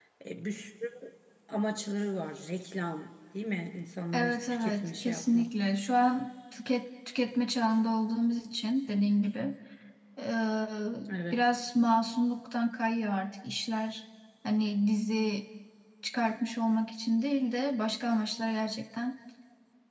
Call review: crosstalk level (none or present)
present